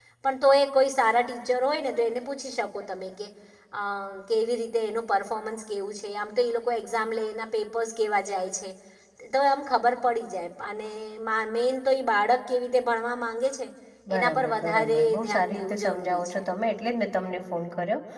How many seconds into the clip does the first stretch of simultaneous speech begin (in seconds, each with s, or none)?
14.2 s